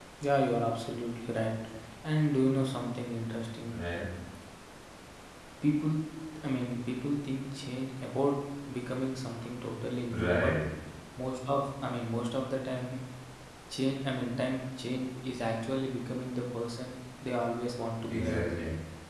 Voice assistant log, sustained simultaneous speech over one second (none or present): none